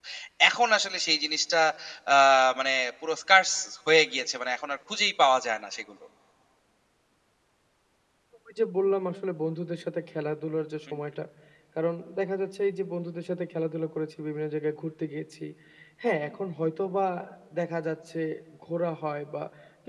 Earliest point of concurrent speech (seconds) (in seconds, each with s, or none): none